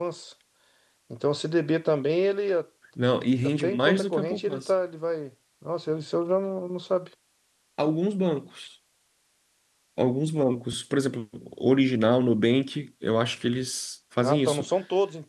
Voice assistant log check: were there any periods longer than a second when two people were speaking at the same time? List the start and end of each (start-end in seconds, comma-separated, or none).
3.4-4.7